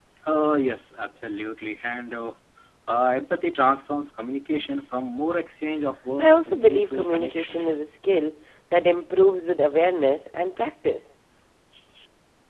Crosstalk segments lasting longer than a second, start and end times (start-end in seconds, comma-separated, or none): 6.2-7.6